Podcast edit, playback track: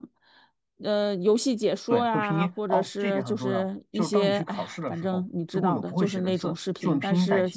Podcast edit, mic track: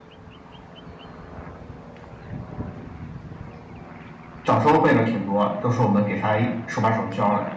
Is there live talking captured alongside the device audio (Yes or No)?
Yes